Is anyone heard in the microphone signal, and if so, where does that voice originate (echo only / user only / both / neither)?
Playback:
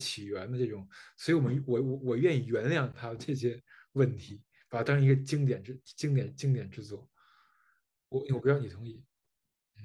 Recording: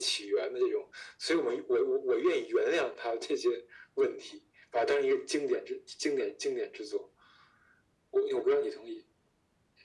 echo only